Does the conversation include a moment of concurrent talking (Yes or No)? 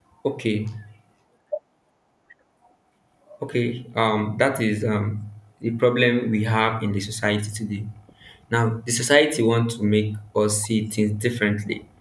No